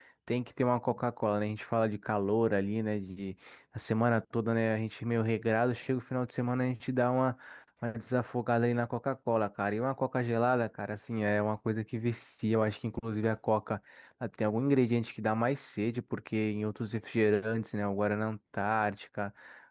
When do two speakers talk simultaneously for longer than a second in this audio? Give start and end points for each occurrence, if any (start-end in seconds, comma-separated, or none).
none